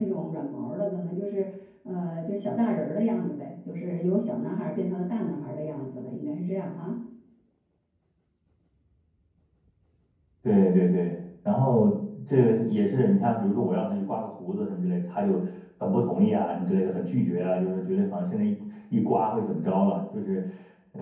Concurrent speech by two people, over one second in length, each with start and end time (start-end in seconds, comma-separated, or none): none